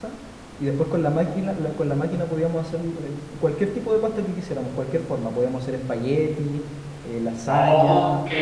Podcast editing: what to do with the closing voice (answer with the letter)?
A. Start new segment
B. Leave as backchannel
A